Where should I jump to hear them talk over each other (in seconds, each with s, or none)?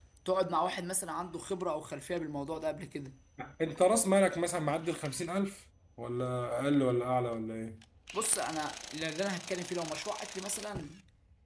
none